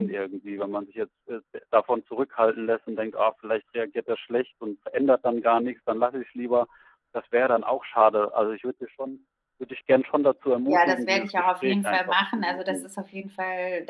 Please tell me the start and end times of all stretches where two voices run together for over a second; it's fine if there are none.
10.7-12.9

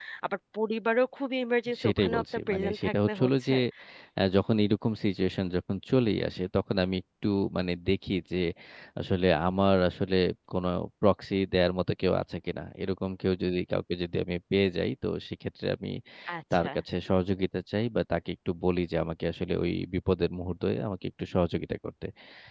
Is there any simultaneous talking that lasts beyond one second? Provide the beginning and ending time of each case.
1.8-3.5

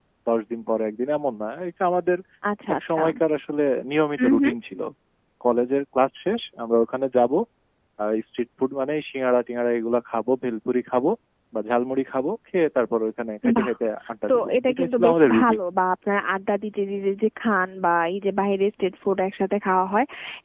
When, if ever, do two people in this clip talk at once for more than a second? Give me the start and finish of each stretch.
14.3-15.6

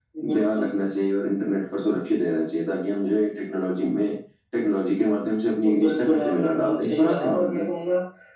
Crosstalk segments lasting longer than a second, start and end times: 5.8-7.7

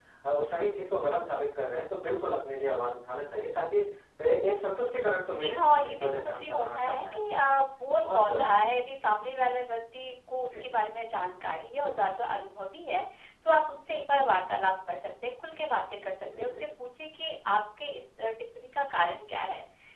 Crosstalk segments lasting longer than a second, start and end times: 5.2-7.4

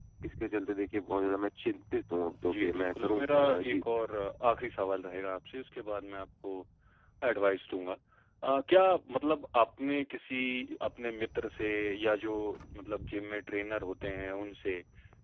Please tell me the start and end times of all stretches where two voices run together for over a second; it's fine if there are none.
2.4-3.8

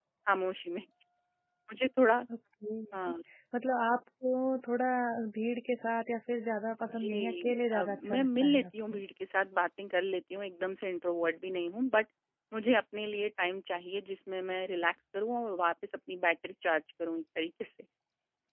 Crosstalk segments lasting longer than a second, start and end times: 6.8-9.0

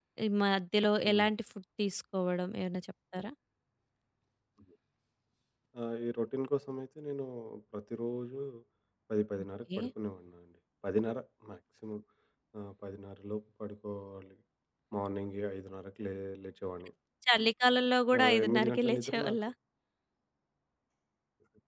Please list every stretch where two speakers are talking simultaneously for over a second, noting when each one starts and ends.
18.2-19.4

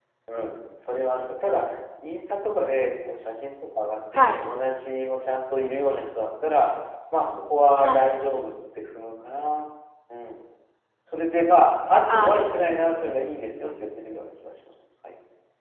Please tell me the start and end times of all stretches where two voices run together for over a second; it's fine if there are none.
12.1-13.3

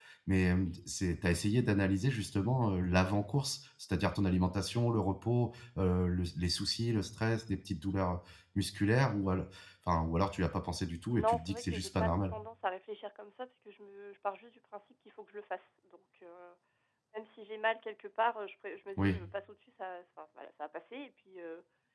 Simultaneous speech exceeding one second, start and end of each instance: 11.1-12.3

